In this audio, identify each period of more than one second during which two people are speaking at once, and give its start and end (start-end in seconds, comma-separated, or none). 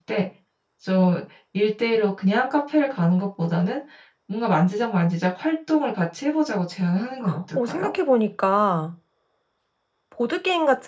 none